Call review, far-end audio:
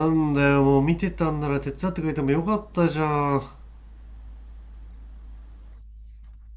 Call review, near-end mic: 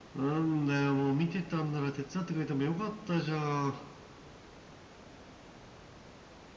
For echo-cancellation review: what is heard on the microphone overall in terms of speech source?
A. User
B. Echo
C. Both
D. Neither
B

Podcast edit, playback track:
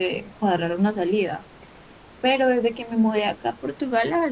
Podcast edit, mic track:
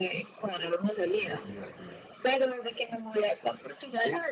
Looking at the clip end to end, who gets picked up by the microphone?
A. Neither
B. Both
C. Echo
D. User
B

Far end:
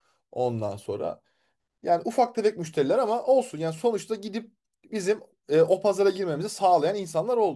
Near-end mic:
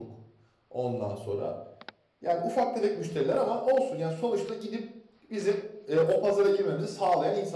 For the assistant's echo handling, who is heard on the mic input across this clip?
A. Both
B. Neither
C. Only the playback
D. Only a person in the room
C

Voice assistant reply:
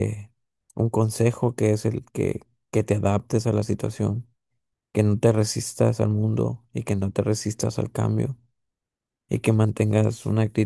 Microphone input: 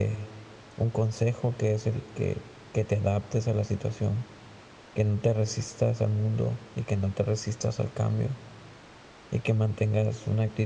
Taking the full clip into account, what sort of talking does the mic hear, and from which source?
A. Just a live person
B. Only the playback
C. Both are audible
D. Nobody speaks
B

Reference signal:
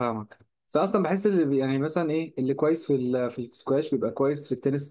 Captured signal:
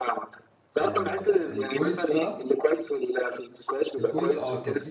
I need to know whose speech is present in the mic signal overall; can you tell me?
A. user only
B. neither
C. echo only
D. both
D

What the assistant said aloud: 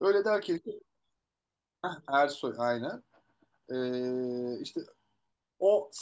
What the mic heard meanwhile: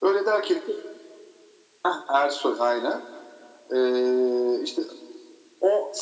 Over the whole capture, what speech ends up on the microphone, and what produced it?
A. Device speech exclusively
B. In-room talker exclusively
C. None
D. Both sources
A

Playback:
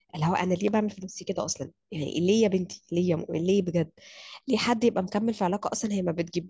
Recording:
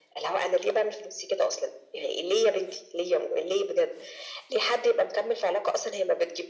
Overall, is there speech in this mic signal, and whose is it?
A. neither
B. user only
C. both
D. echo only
D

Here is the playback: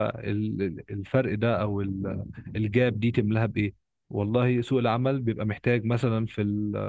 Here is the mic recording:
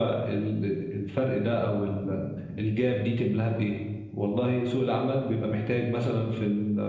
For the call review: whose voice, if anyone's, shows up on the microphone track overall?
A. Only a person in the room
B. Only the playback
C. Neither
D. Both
B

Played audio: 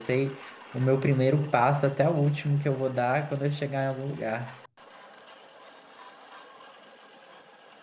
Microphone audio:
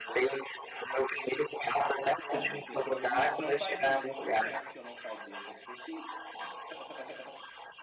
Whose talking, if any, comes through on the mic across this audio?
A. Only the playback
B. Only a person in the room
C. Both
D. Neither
C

